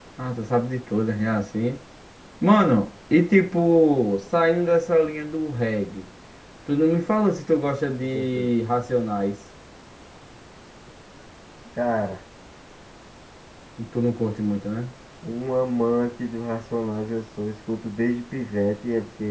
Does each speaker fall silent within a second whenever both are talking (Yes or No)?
Yes